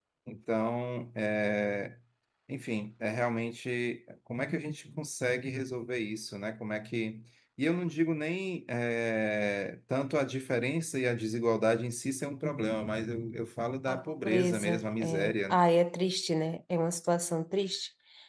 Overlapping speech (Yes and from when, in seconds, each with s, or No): Yes, from 13.9 s